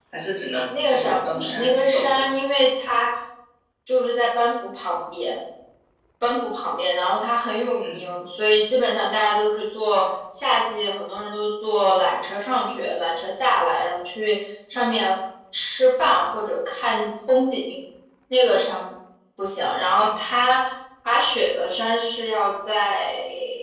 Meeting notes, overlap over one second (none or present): present